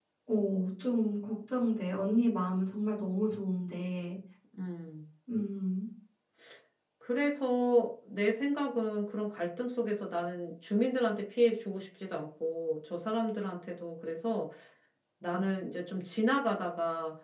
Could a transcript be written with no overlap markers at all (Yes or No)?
Yes